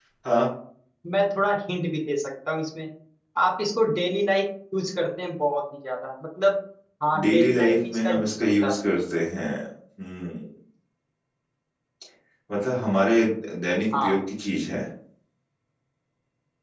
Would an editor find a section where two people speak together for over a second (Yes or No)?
Yes